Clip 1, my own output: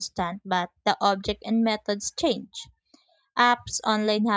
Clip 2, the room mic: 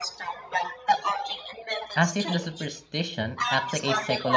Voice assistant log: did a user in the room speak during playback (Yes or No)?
Yes